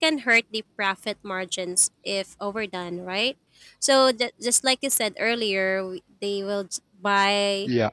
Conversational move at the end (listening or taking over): listening